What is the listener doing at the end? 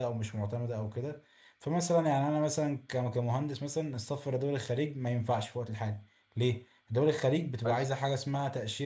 listening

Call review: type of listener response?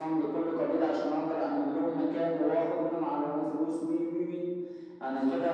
listening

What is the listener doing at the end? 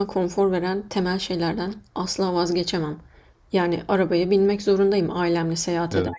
listening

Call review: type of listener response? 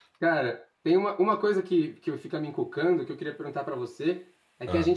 listening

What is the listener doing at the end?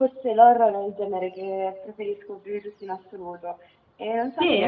listening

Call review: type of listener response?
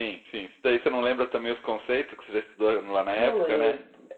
taking over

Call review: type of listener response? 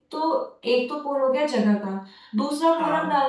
listening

